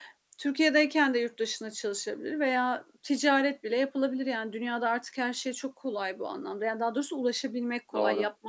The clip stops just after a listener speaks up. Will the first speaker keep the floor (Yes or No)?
Yes